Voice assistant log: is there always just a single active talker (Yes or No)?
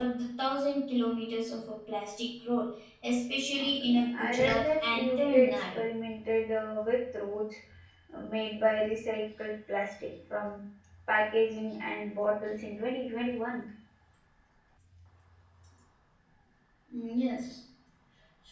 No